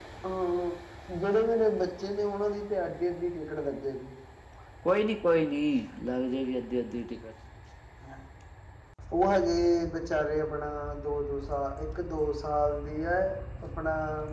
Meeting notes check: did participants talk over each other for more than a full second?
No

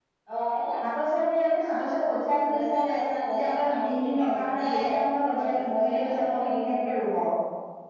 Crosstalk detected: Yes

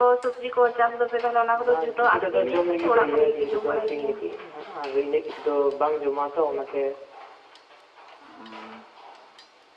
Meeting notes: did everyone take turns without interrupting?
No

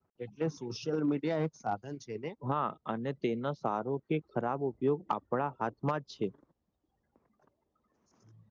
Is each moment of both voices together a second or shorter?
Yes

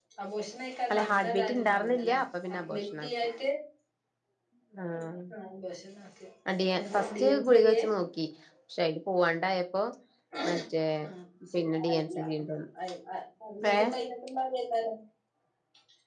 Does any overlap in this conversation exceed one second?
Yes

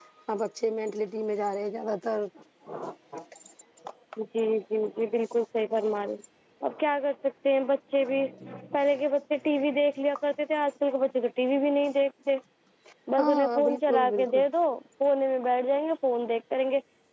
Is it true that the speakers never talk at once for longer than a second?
No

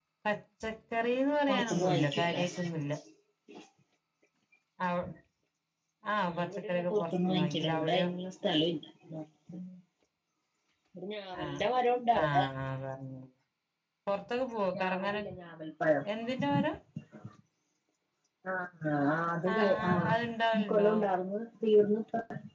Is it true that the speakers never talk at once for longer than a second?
No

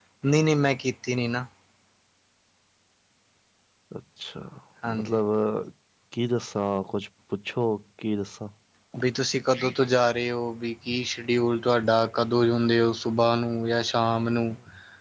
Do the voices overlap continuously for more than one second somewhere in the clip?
No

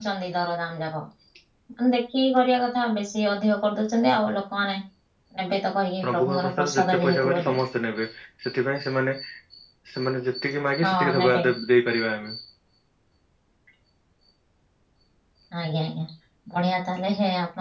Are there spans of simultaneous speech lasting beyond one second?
Yes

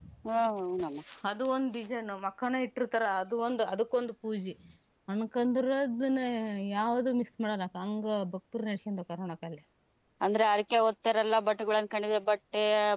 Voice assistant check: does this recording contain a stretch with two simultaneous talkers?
No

